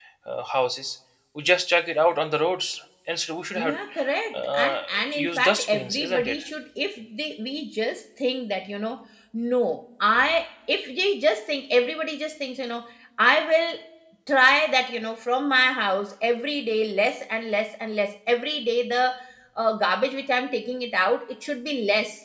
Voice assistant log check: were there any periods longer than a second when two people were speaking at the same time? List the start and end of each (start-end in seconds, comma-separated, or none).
4.3-6.4